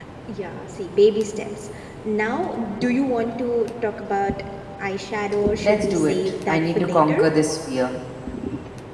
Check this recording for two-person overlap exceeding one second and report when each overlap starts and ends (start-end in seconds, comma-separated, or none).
5.6-7.2